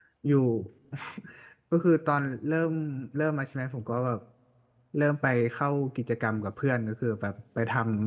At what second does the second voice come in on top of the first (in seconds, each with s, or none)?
none